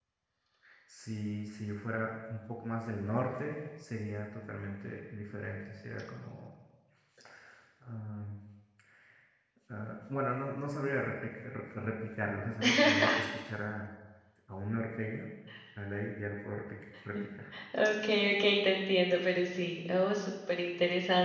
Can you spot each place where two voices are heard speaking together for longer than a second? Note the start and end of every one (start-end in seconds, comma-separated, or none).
none